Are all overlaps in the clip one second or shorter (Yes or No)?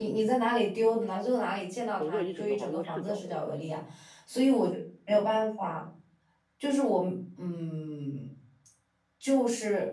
No